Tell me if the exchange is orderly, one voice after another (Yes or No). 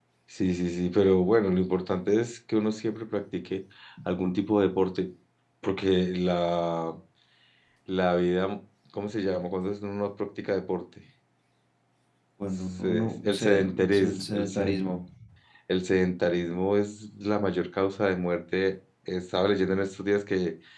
No